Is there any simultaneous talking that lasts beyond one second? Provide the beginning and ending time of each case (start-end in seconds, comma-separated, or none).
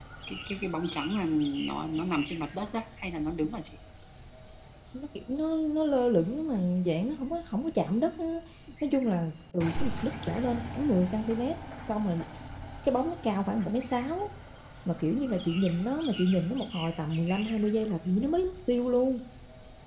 none